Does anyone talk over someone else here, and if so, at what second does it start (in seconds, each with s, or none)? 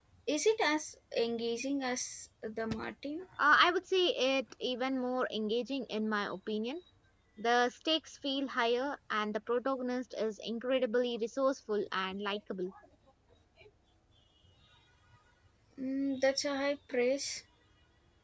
none